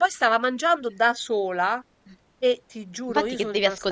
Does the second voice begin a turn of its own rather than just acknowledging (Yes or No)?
Yes